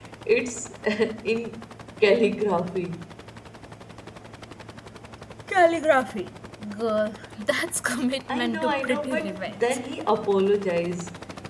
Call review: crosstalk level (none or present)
present